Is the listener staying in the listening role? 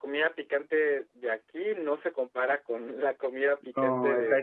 No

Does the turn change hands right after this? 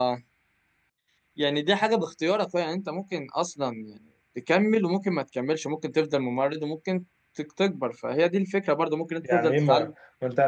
Yes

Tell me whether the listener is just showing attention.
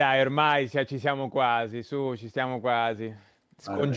Yes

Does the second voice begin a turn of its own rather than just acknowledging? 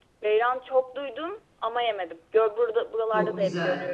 Yes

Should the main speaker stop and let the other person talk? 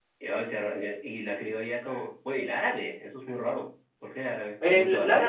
Yes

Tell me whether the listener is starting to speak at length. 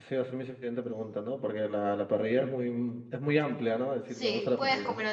Yes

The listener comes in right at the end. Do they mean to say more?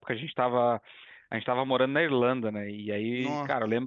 No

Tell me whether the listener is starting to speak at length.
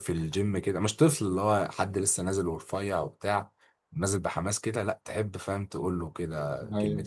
No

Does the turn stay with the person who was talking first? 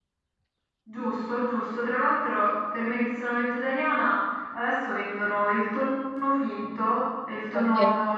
Yes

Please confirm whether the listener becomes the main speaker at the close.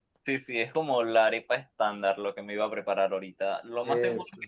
No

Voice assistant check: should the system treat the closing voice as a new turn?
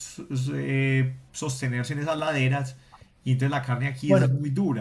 No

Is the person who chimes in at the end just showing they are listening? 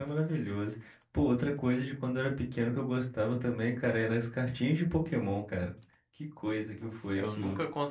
No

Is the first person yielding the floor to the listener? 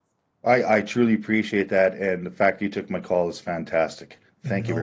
Yes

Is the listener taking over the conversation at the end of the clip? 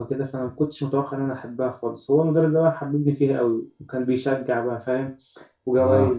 No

